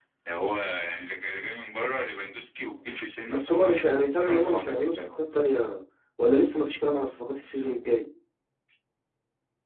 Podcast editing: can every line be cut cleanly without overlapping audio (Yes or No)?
No